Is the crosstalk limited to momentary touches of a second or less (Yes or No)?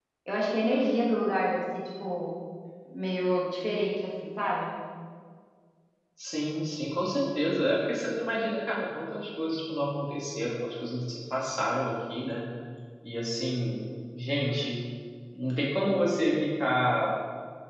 Yes